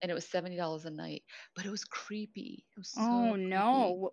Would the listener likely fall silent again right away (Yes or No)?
No